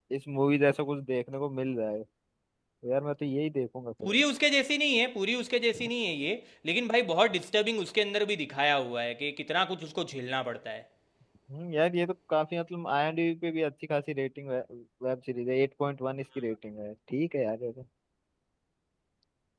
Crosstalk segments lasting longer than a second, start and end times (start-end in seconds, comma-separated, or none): none